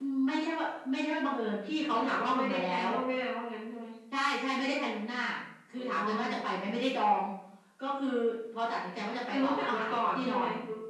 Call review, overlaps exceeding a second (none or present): present